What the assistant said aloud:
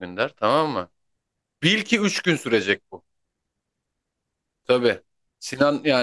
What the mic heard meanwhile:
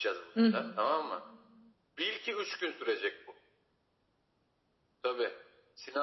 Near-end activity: present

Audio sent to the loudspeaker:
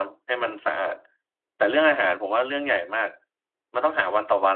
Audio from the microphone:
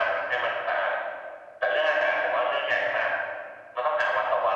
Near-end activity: none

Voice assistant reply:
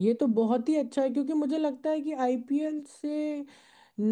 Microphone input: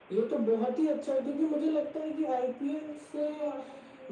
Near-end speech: present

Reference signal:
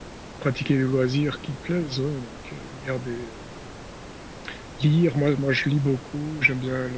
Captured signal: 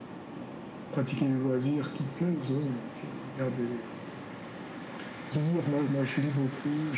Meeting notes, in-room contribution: none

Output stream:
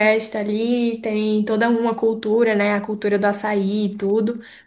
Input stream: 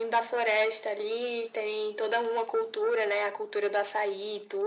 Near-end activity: none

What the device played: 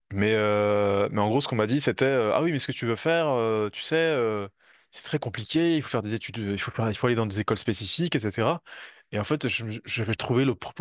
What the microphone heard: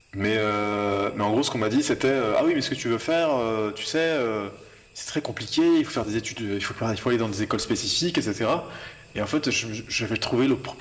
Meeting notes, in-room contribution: none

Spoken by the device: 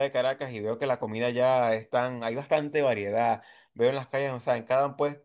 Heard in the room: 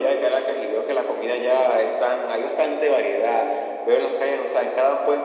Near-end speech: none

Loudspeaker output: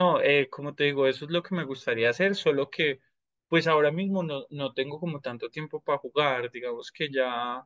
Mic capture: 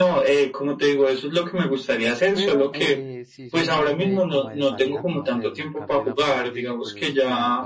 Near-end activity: present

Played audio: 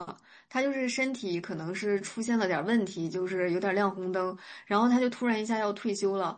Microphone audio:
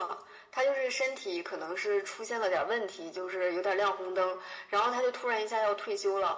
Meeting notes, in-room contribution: none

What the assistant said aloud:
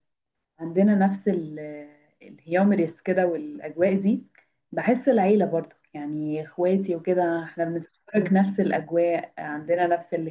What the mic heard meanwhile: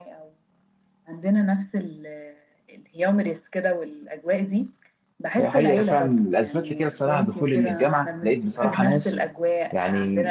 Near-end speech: present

